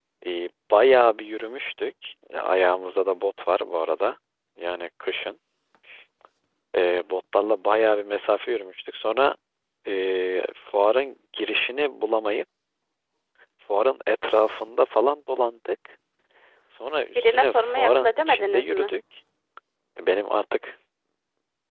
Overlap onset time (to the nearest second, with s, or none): 17 s